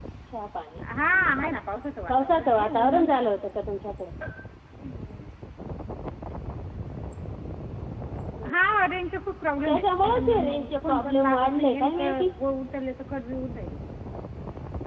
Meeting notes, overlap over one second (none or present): present